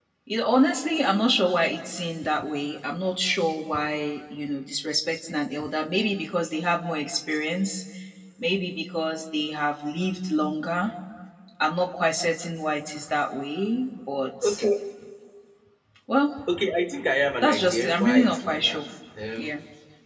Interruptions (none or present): present